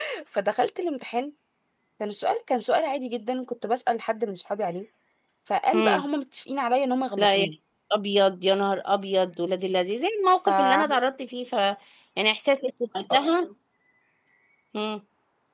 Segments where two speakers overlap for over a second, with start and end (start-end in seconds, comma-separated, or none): none